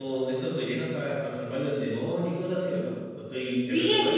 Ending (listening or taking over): taking over